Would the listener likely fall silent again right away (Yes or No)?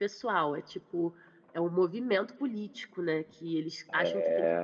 Yes